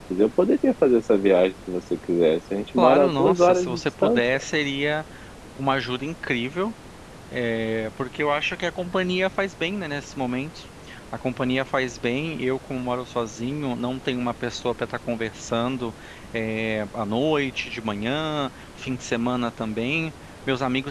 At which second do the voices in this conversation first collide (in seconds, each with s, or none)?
2.8 s